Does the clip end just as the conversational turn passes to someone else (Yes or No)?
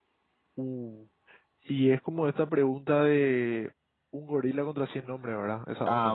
Yes